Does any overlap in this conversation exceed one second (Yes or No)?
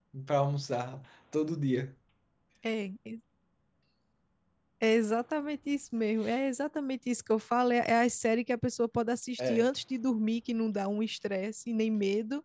No